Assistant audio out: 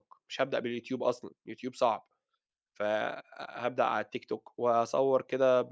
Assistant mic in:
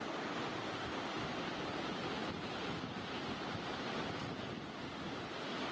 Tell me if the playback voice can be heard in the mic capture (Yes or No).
No